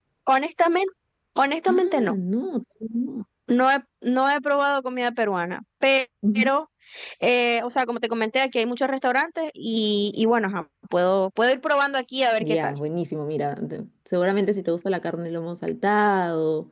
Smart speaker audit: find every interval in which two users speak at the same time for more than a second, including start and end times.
none

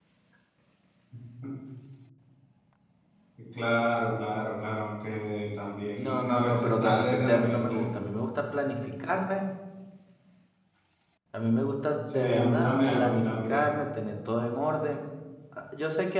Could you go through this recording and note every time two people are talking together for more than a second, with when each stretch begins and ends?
6.0-7.9, 12.1-13.7

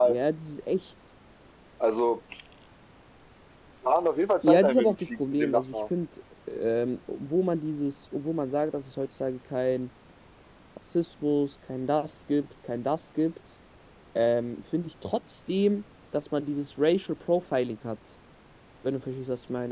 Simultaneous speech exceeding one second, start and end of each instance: 4.4-5.8

